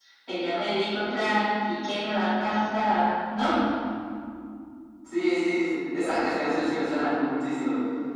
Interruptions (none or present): none